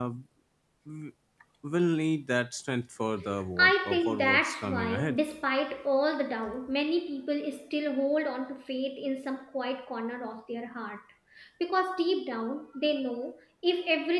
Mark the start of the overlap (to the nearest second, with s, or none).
4 s